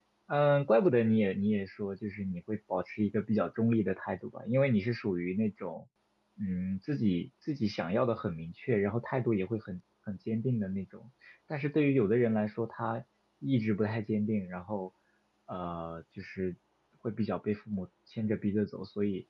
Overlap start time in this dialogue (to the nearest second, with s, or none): none